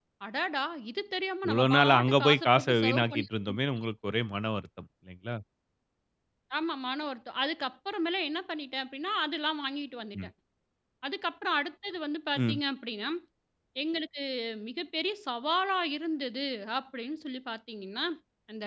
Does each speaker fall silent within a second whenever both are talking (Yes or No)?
No